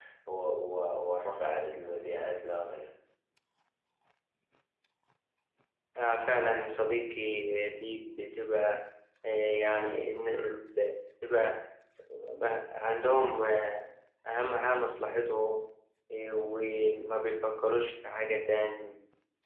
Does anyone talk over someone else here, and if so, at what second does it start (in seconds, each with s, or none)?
none